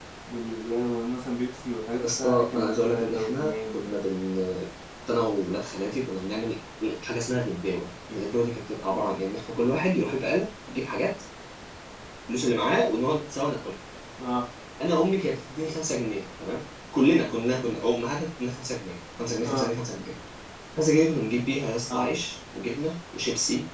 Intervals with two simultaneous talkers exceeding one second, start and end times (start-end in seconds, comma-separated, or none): 2.0-4.0